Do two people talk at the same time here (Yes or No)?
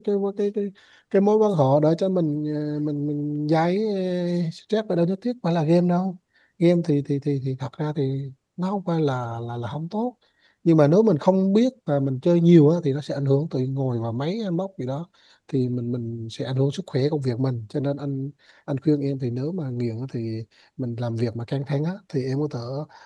No